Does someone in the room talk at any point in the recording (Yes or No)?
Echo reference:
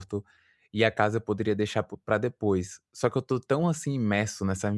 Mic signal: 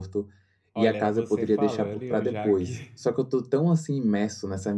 Yes